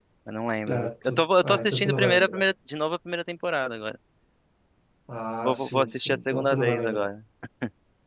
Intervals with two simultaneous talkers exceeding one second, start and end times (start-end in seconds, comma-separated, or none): 0.7-2.4, 5.4-7.1